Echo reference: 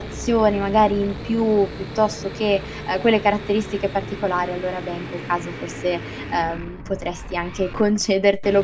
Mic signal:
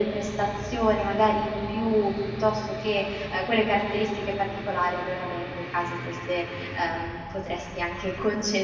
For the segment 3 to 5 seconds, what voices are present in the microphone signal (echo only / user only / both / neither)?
echo only